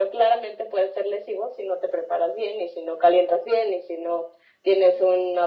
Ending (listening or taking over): listening